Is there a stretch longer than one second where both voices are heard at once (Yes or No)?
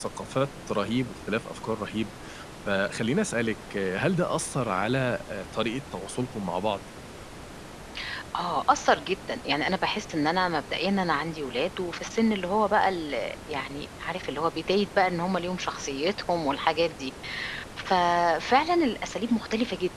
No